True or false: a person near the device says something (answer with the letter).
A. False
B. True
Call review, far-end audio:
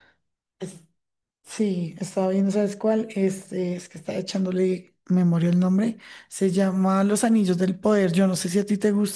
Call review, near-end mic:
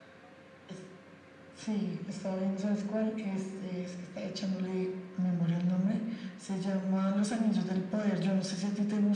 A